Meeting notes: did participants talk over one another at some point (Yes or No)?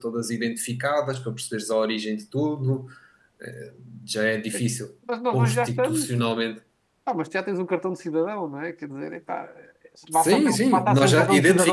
Yes